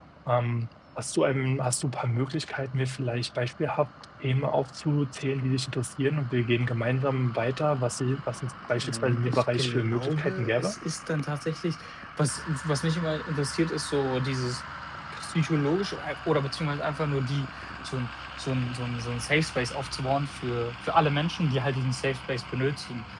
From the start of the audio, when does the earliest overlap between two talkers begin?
9 s

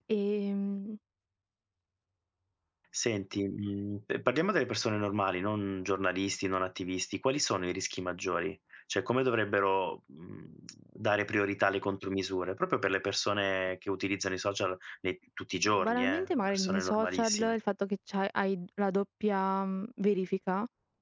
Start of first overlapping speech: 16 s

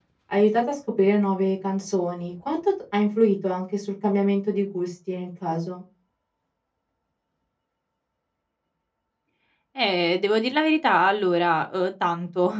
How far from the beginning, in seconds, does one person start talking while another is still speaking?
none

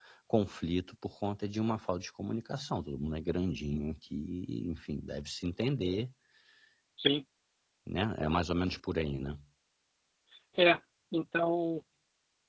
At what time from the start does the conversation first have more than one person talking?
none

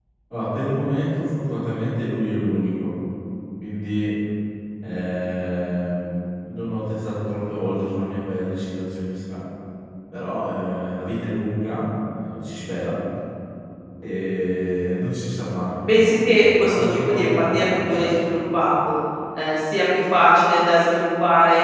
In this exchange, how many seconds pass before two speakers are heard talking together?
16 s

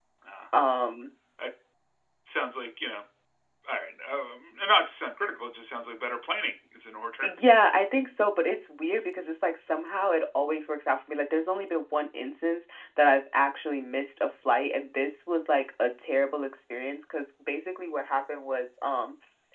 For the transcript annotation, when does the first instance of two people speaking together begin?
none

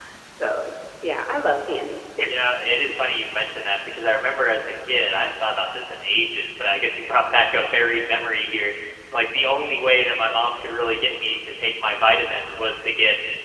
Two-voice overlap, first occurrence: none

